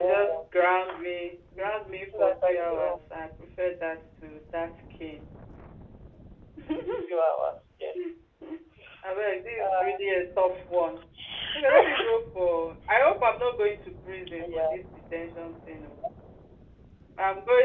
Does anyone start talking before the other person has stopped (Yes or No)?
Yes